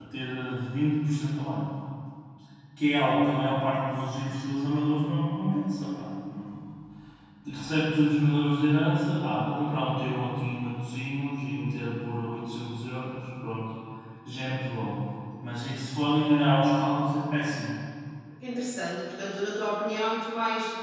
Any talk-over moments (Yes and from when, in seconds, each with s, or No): No